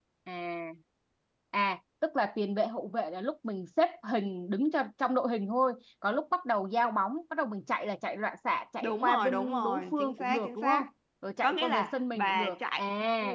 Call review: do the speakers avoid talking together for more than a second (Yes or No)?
No